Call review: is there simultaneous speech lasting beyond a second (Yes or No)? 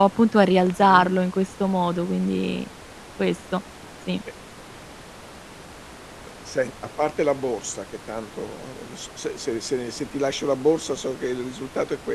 No